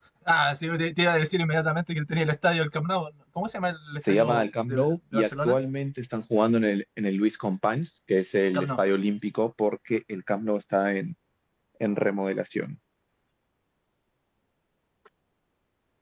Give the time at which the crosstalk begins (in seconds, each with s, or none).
4.1 s